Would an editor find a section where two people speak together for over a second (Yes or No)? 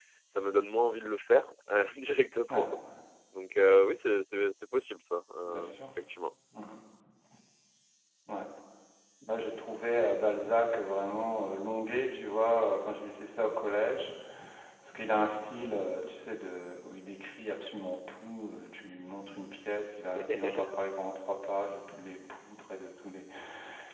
No